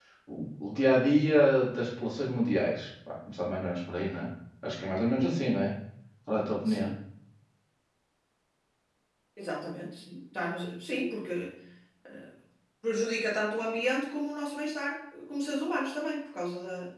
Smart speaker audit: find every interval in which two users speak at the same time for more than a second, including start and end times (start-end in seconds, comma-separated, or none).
none